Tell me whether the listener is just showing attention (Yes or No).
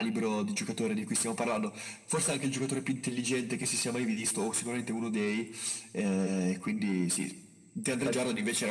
Yes